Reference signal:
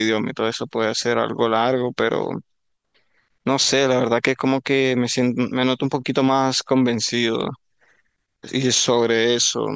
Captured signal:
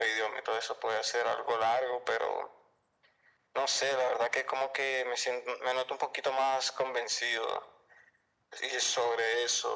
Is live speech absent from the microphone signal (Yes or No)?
Yes